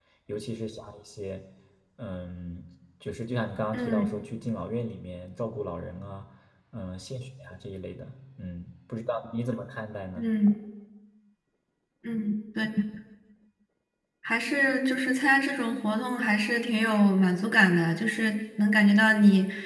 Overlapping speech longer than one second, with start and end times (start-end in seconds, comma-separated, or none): none